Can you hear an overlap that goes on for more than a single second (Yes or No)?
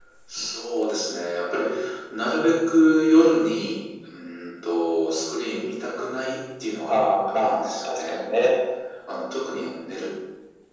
Yes